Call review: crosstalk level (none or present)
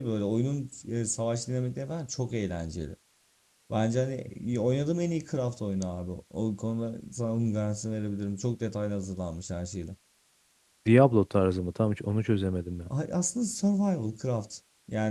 none